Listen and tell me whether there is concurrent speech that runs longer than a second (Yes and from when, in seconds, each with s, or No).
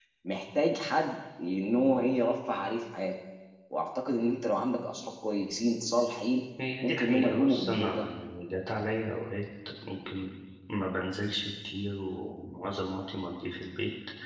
Yes, from 6.6 s